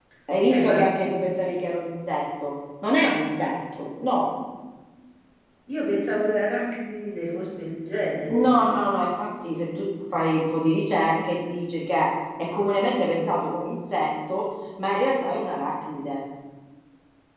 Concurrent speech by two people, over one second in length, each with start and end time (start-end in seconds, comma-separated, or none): none